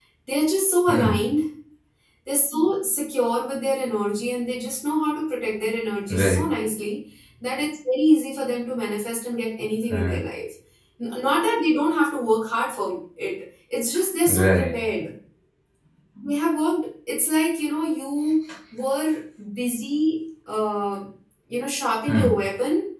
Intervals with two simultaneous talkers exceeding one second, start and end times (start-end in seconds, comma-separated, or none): none